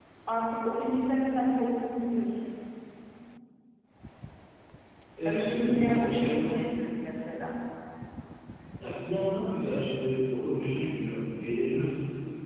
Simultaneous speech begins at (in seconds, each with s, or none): 5.2 s